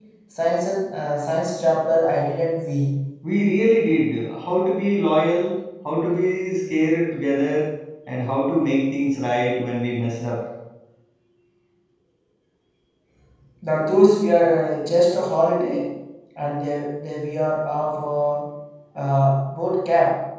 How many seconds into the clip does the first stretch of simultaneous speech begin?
none

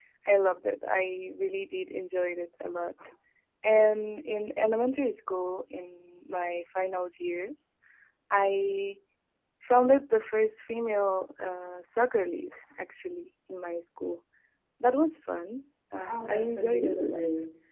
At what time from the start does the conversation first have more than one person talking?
16.0 s

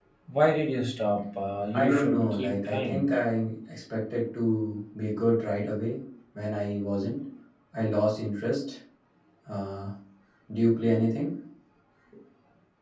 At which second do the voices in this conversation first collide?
1.7 s

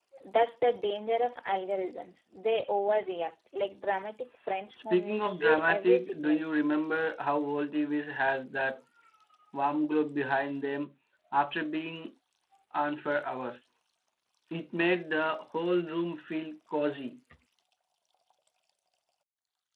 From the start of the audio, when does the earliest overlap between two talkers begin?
4.9 s

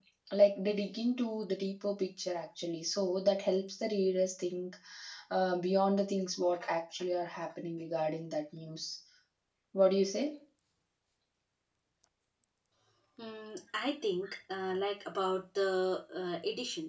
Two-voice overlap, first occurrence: none

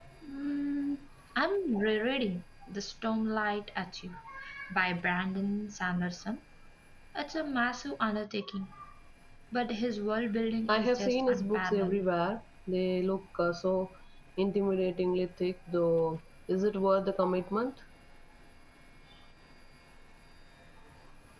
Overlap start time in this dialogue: 10.7 s

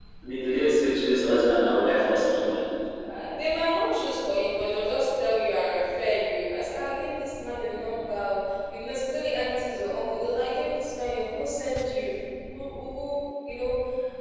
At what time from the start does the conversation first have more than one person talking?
none

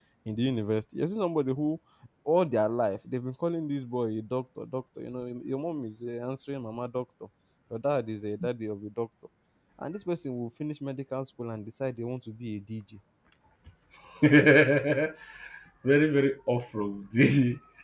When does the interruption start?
none

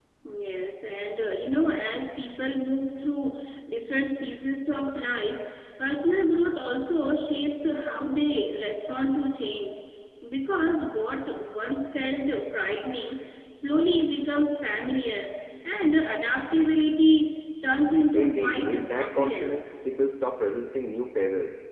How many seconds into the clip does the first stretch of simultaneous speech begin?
18.1 s

